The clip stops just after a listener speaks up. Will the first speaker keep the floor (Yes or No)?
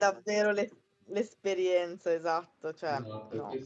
No